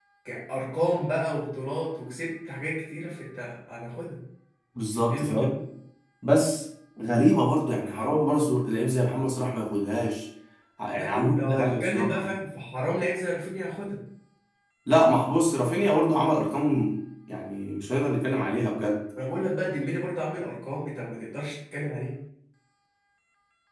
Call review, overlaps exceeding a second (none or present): present